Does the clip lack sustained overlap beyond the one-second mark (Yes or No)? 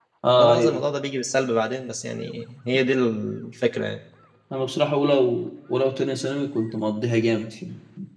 Yes